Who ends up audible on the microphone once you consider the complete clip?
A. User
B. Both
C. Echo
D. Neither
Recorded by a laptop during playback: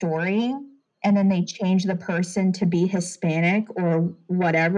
C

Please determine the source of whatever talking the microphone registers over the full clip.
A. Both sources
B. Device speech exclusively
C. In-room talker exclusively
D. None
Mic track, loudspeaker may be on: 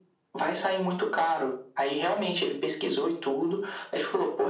B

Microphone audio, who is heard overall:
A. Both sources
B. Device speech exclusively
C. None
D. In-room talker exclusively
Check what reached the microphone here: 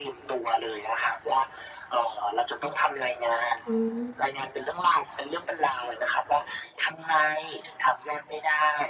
A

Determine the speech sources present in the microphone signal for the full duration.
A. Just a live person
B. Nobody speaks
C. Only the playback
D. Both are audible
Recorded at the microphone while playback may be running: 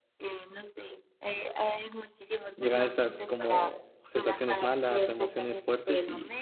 D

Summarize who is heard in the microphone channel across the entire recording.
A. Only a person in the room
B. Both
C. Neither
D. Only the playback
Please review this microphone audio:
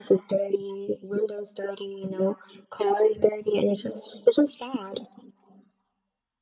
D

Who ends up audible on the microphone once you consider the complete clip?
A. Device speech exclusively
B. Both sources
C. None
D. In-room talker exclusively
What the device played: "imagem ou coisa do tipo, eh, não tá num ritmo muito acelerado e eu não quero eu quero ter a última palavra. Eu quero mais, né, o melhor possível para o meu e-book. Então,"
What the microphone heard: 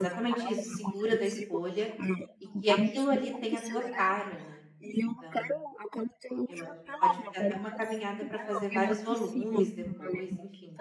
B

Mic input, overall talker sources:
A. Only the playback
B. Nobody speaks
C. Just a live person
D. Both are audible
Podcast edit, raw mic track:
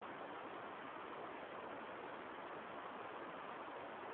B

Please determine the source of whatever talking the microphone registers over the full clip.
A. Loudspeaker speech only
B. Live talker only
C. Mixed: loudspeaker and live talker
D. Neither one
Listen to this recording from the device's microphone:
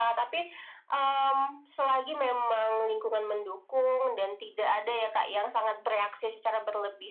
A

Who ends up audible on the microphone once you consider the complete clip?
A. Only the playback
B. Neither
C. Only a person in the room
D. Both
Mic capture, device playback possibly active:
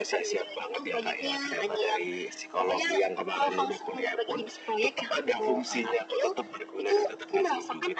A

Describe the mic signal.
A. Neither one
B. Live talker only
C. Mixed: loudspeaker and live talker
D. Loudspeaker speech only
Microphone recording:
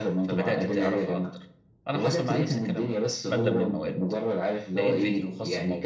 C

